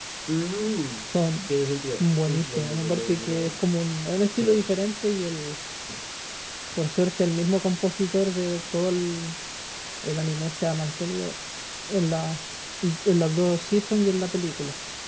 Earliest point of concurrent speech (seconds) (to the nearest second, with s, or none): 2 s